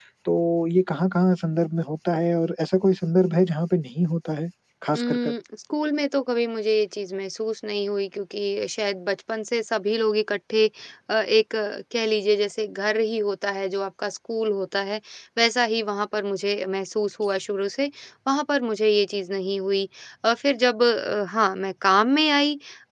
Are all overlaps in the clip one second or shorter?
Yes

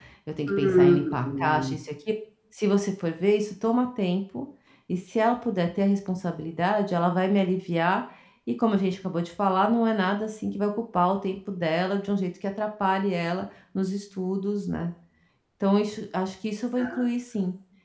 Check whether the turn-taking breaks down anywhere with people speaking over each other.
Yes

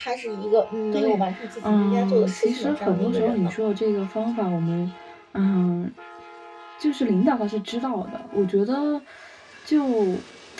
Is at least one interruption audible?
Yes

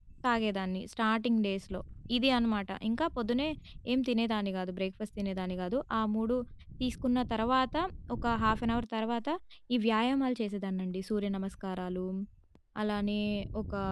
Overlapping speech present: No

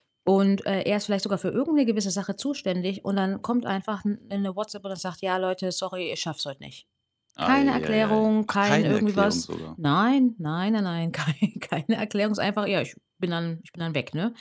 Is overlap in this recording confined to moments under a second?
No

